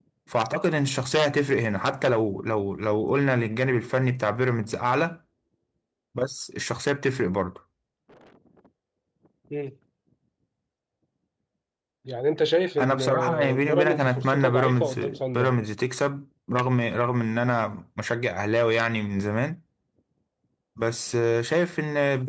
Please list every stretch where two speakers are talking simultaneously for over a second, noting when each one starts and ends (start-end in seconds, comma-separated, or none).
12.8-15.0